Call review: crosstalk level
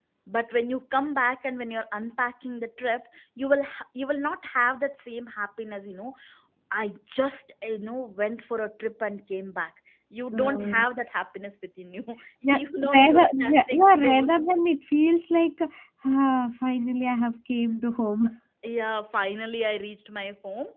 present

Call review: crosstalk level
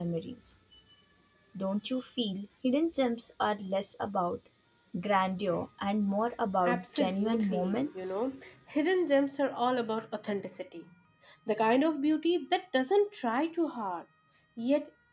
present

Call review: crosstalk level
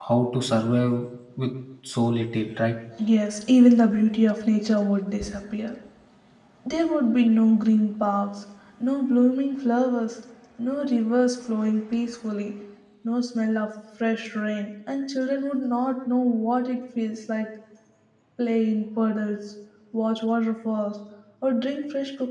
none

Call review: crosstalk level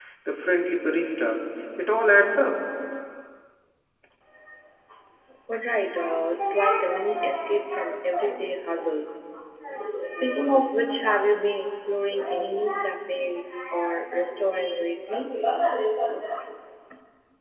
none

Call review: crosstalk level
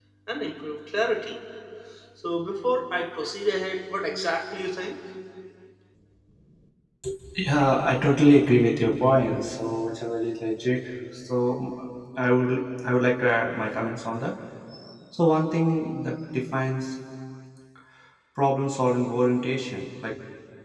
none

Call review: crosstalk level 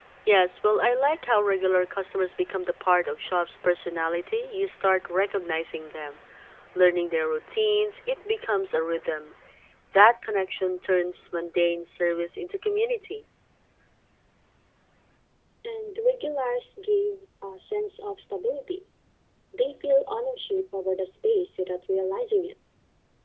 none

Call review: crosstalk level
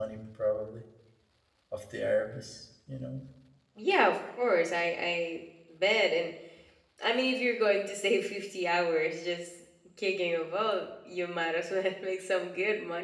none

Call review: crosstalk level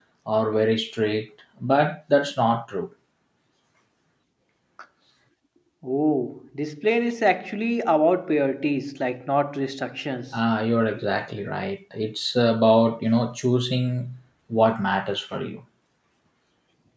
none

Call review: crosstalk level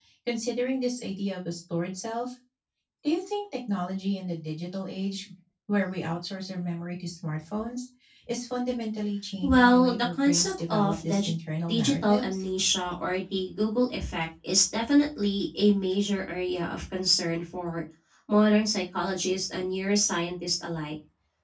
present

